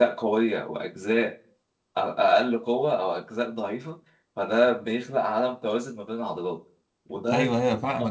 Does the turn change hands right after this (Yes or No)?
Yes